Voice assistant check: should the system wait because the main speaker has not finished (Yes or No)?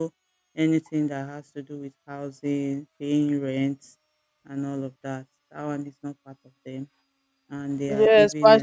No